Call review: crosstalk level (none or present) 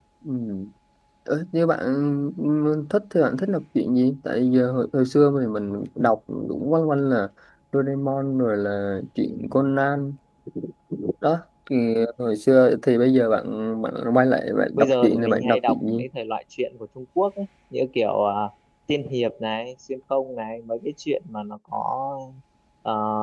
present